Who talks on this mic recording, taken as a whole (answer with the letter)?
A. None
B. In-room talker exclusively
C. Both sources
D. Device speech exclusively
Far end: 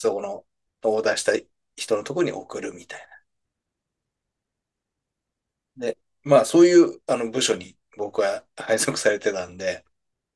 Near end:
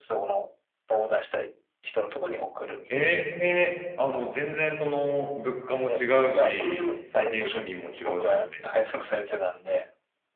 C